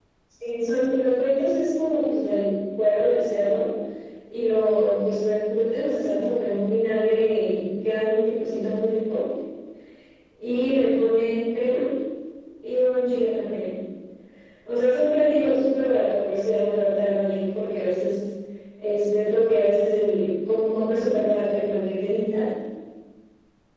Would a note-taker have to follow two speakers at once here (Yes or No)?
No